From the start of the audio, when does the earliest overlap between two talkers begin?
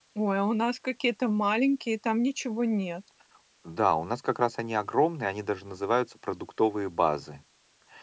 none

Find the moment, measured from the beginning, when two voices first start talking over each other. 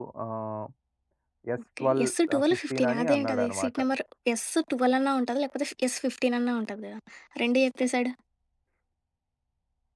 2 s

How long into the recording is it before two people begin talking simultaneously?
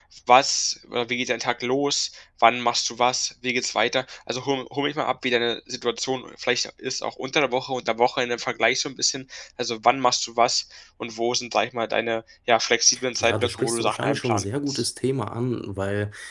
13 s

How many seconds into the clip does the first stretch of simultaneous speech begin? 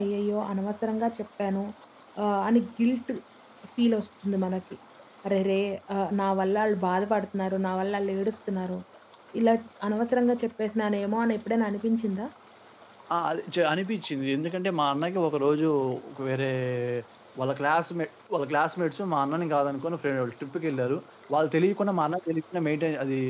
none

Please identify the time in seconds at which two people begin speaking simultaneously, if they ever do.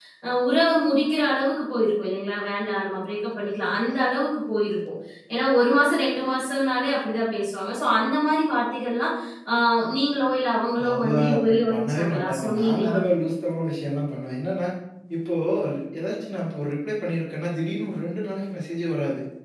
11 s

